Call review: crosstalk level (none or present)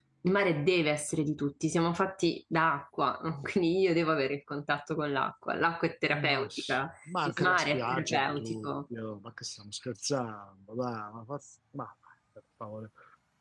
present